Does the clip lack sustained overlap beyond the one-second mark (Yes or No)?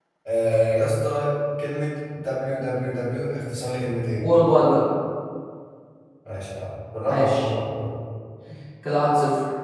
Yes